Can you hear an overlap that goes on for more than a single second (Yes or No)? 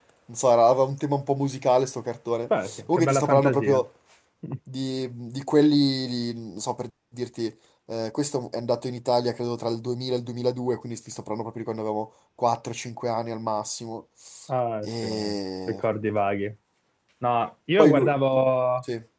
Yes